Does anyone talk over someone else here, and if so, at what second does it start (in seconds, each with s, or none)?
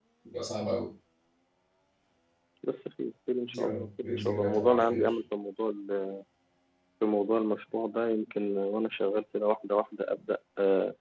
3.5 s